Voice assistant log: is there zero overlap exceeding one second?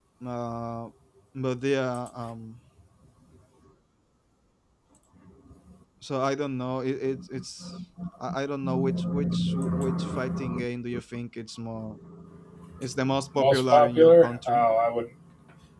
No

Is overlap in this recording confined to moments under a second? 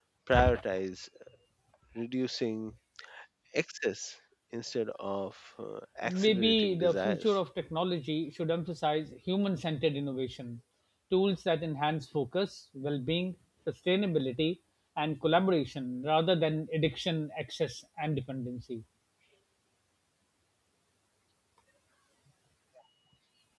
No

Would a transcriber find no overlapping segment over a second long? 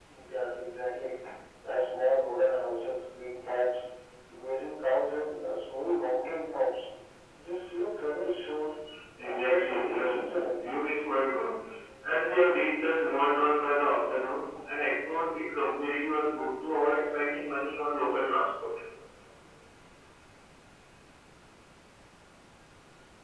No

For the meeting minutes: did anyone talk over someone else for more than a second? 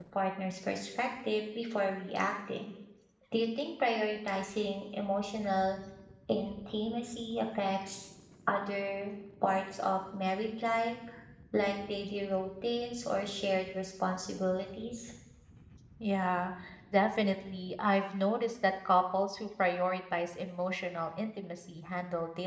No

